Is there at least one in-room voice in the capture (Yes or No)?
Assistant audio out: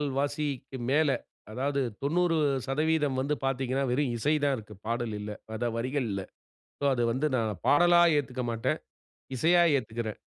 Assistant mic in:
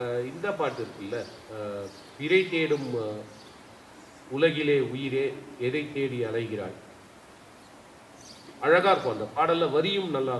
Yes